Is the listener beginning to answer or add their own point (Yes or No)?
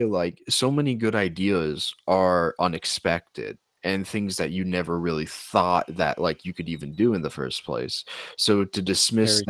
No